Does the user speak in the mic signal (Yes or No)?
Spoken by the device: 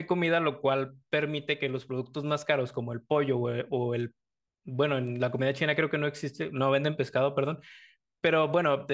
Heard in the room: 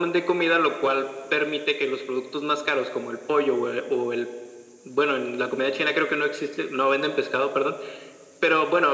No